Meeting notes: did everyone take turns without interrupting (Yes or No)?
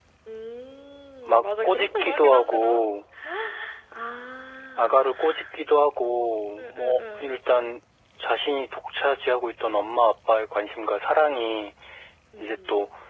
No